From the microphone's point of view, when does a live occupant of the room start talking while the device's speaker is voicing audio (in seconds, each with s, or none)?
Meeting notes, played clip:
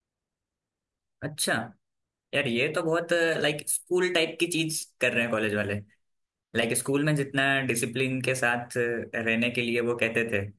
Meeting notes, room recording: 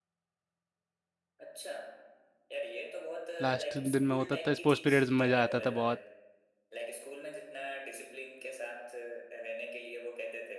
3.4 s